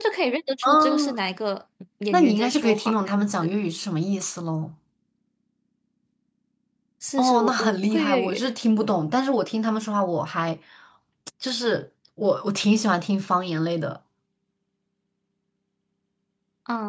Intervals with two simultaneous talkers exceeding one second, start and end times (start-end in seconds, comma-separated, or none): 2.1-3.6, 7.2-8.5